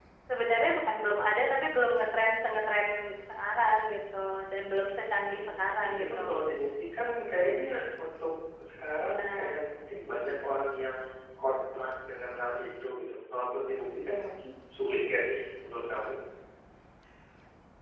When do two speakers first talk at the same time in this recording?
5 s

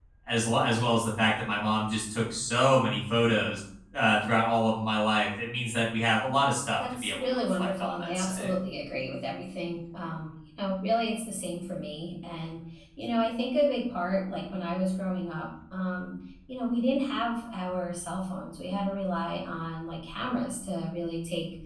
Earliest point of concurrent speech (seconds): 7 s

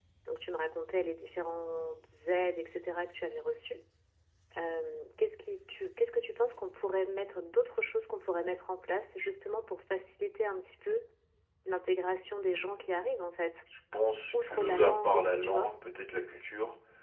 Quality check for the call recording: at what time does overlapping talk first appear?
14 s

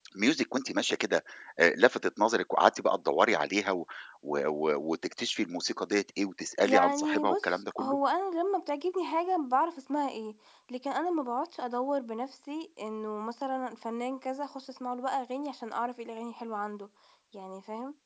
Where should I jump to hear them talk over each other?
7 s

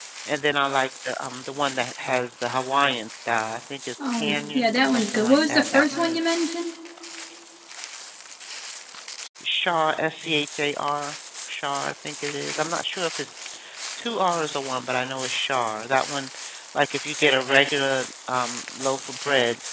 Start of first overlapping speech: 4 s

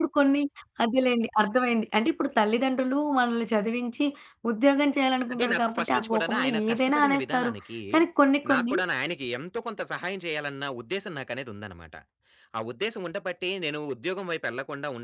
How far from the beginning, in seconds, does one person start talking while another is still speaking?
5 s

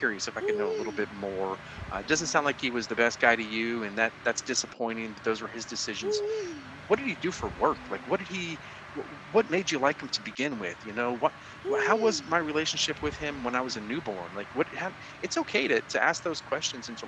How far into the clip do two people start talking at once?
none

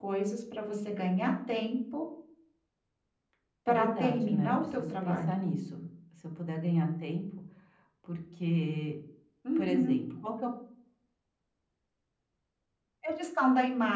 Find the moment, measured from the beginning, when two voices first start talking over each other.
4 s

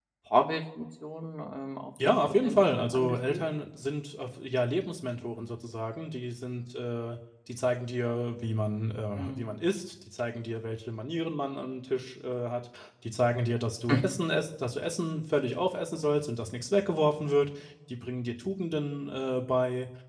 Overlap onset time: 2 s

